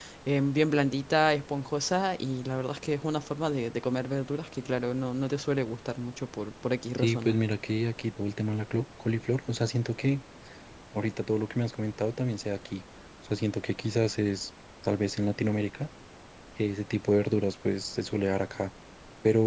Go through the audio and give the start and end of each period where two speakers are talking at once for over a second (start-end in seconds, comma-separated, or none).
none